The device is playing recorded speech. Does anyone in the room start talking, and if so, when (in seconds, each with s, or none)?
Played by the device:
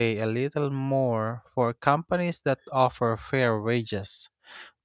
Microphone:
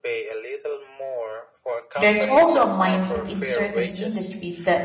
1.9 s